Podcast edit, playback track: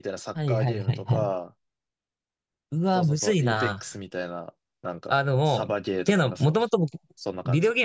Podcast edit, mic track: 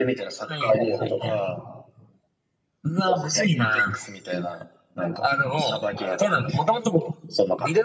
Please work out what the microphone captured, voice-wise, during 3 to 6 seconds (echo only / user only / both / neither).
echo only